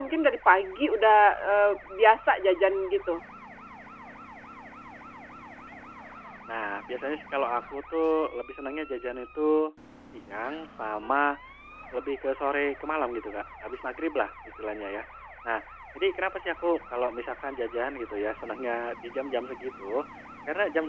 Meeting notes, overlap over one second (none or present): none